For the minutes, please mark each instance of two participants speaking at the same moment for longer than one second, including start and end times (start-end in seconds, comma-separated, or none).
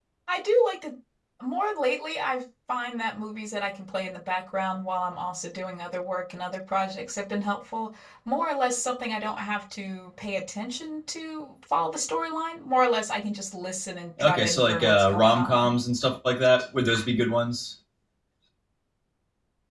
14.2-15.7